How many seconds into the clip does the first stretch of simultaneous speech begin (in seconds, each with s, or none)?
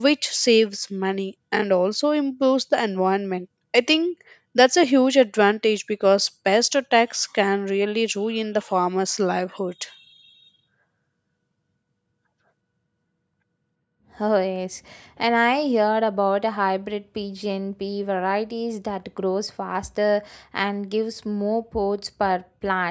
none